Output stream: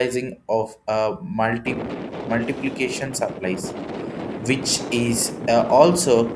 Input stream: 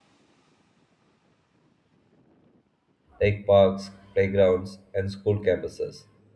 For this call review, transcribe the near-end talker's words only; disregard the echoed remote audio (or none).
like parks, playgrounds, and school campuses.